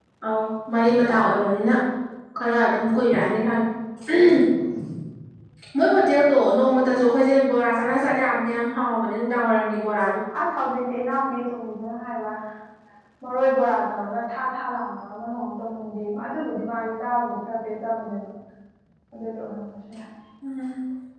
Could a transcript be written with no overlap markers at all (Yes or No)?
Yes